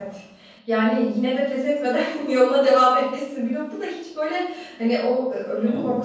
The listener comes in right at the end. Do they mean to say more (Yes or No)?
No